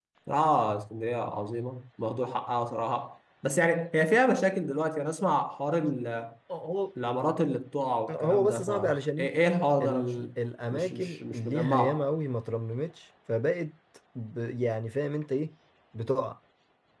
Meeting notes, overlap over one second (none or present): present